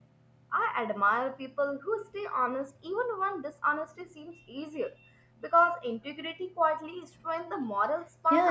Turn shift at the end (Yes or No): Yes